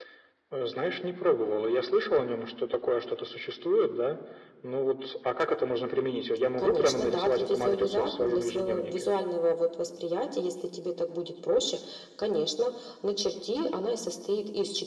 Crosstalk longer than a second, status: present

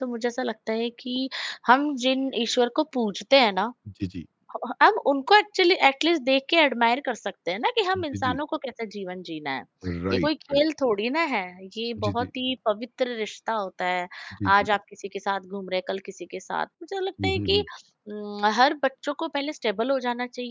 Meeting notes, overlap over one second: none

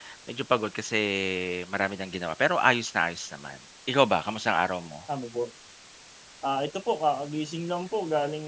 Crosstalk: none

